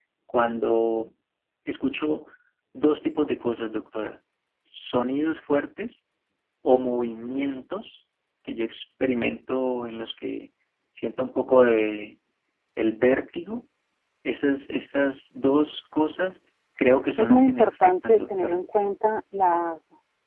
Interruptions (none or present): present